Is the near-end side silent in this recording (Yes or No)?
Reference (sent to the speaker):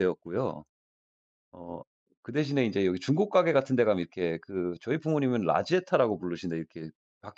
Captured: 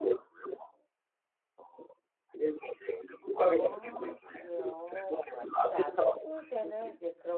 No